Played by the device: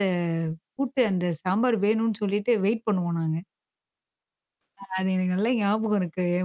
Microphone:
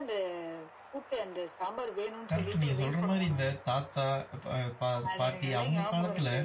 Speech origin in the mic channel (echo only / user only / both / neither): both